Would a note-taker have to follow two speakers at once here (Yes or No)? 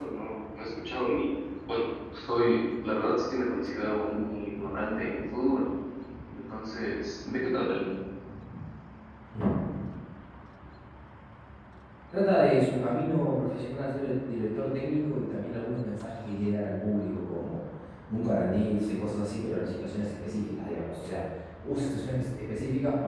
No